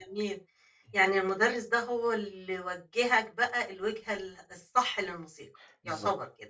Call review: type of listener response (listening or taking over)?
taking over